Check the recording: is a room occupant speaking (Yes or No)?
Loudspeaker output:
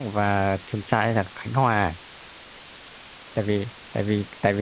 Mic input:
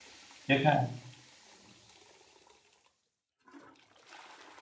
Yes